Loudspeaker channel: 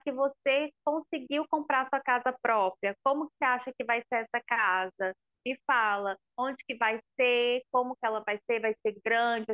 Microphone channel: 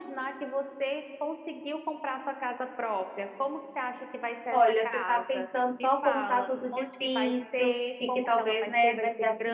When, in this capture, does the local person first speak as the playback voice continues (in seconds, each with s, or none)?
4.5 s